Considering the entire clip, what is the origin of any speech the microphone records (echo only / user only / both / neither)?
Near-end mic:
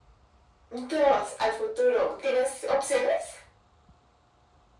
echo only